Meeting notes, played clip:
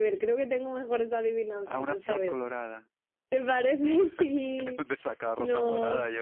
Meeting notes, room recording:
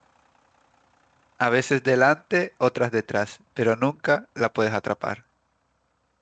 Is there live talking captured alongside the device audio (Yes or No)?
Yes